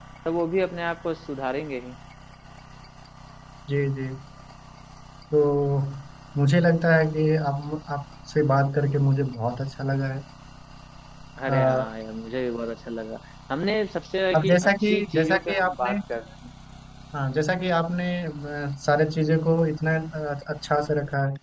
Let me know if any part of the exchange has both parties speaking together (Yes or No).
Yes